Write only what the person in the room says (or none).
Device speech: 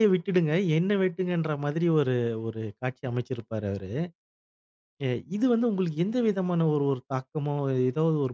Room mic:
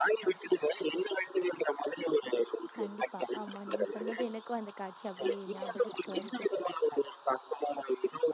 கண்டிப்பா. ஆமா. நீங்க சொன்னது எனக்கும் அந்த காட்சி அப்படியே ஞாபகத்துக்கு வருது.